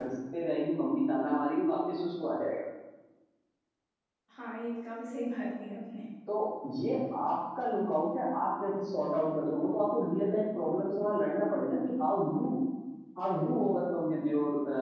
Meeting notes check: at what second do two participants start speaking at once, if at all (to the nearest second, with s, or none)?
none